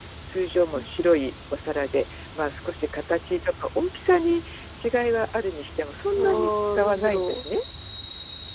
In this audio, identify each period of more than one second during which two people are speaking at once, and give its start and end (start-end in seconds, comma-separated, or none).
6.1-7.4